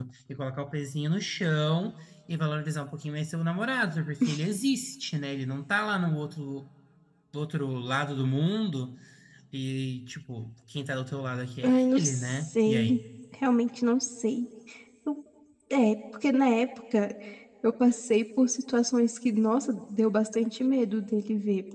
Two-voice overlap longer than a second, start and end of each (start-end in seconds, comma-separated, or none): 11.6-13.0